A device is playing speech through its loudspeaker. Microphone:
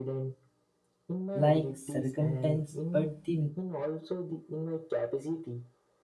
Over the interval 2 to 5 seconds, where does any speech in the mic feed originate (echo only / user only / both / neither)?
both